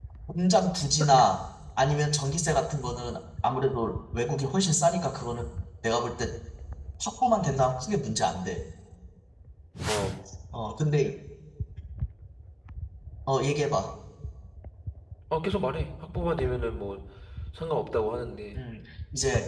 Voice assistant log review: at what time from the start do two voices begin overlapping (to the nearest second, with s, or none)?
none